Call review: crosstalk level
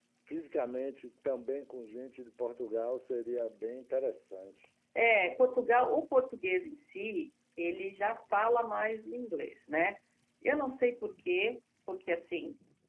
none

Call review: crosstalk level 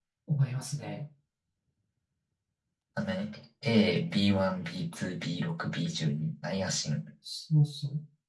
none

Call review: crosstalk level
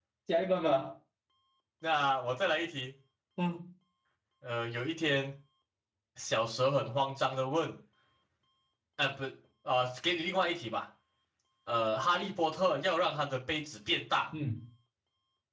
none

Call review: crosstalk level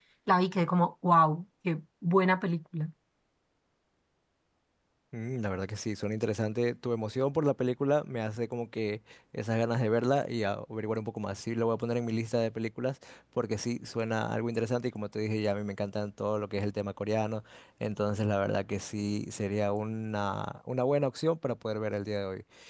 none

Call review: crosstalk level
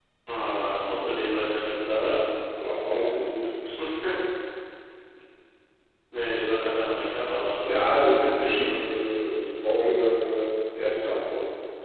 present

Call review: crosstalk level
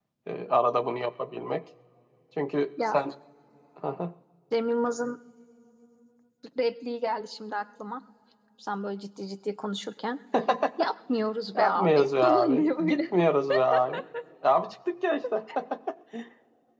present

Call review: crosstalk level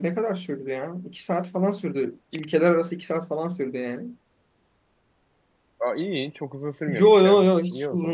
present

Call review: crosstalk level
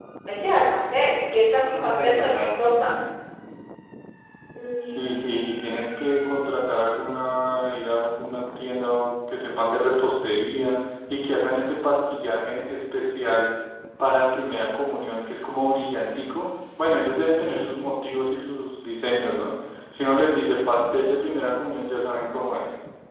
present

